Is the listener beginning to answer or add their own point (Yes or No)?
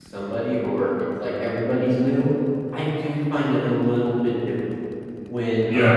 No